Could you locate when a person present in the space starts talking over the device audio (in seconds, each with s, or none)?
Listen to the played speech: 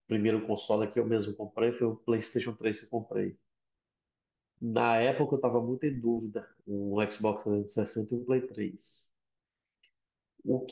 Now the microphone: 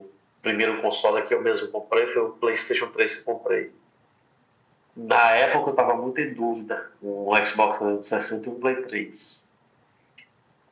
none